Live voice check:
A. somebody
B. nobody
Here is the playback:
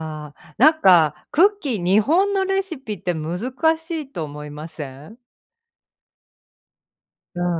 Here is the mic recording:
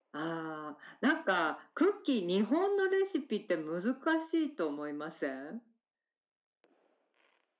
B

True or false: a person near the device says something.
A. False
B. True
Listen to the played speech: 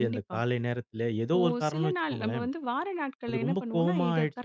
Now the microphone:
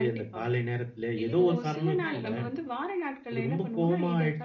B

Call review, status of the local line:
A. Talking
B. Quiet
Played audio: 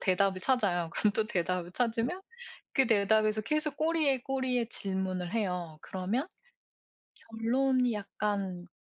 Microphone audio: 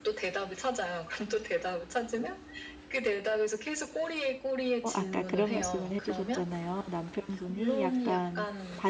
A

